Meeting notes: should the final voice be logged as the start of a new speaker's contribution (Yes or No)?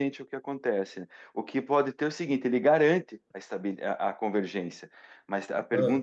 No